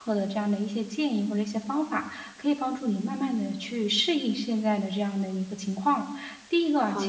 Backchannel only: Yes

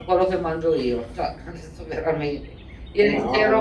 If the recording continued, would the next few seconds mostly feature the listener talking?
No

